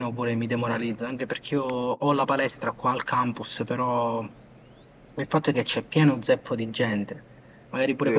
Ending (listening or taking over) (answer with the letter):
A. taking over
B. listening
A